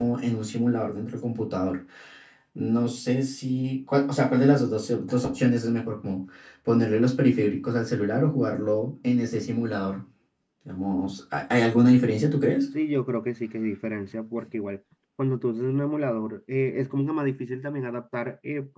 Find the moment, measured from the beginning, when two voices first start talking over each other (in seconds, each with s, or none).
none